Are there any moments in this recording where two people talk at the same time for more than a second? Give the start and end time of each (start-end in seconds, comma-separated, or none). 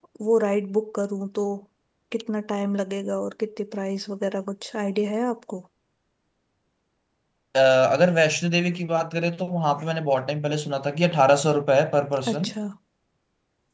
none